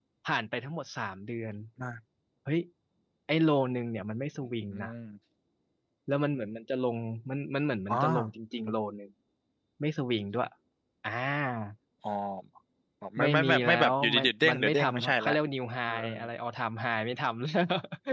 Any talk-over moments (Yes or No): Yes